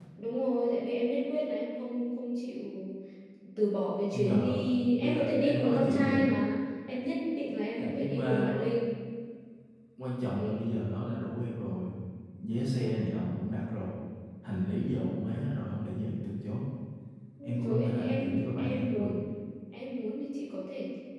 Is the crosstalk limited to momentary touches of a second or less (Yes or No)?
No